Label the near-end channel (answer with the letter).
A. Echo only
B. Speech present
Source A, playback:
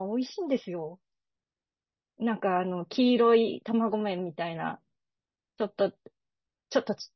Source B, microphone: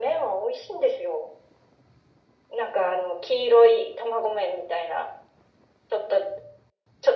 A